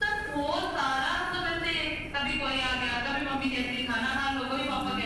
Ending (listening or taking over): listening